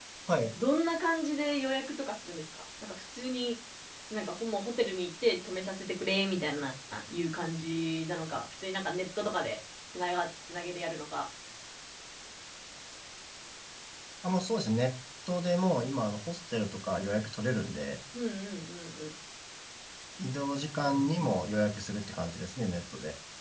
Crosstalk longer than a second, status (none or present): none